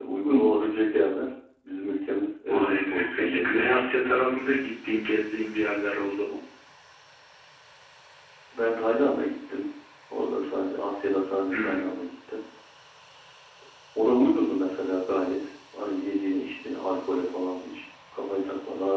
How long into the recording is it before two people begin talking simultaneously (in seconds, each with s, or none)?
2.5 s